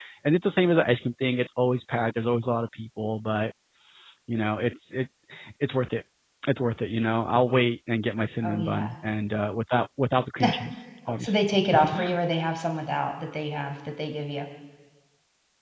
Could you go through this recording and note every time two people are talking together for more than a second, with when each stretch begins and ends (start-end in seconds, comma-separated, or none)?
none